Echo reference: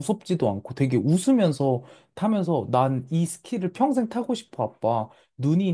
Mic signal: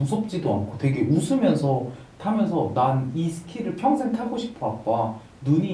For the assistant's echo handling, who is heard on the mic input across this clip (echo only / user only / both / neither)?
echo only